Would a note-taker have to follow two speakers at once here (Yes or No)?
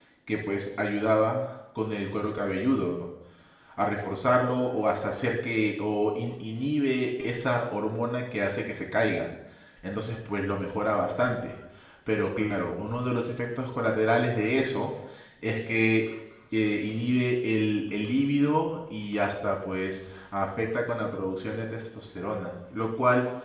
No